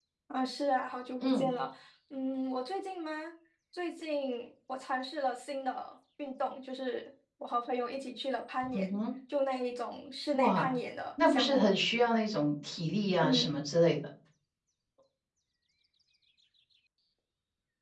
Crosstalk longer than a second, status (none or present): none